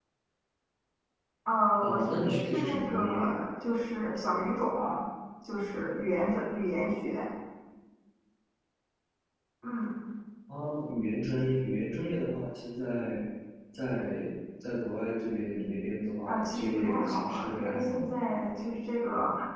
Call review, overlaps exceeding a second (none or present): present